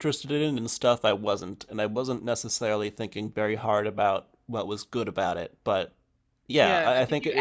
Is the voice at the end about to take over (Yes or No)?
Yes